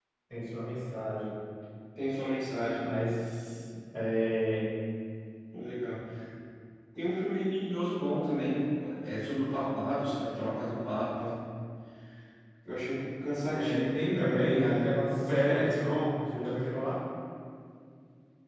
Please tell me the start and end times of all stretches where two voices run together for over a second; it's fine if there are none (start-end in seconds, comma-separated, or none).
13.5-16.0